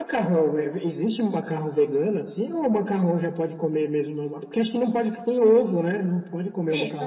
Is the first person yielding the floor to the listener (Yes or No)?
Yes